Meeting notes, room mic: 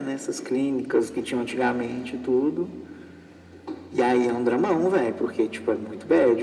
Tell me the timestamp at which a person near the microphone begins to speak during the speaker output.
none

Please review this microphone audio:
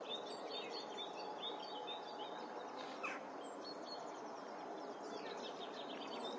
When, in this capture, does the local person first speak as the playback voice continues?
none

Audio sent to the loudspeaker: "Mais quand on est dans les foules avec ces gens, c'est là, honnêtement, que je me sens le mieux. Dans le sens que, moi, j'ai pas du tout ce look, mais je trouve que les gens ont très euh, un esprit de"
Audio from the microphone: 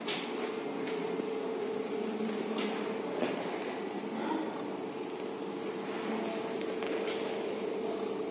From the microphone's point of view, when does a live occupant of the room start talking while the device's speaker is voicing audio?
none

